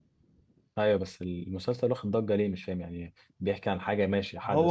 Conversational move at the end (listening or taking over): taking over